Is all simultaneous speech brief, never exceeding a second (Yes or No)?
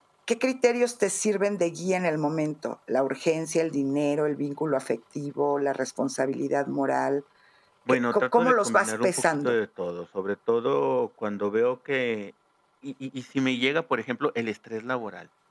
No